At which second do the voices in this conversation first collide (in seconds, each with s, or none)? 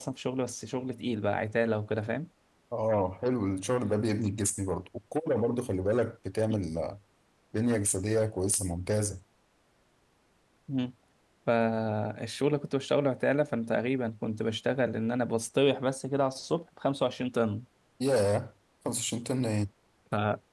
none